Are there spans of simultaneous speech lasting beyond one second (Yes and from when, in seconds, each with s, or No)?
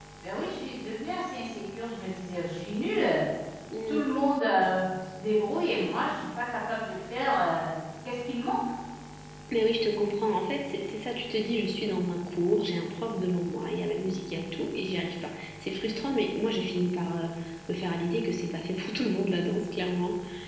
No